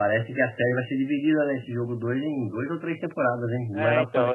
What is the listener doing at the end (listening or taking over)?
taking over